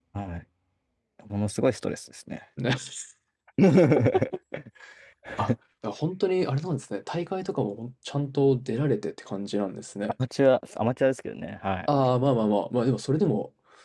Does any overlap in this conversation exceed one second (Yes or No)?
No